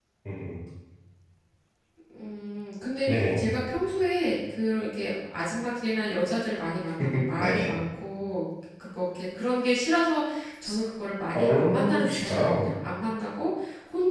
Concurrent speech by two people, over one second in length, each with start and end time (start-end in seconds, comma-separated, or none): 11.3-12.8